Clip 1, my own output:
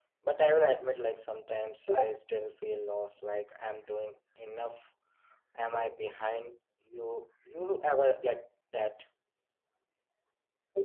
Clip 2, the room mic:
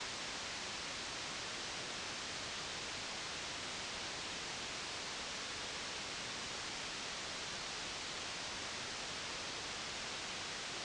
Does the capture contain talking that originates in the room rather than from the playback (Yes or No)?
No